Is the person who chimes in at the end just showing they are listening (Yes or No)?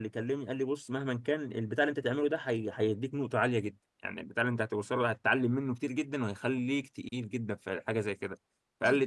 Yes